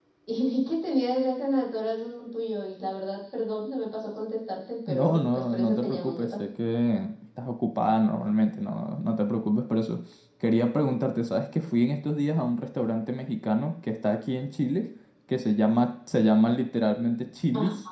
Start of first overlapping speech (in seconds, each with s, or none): 4.9 s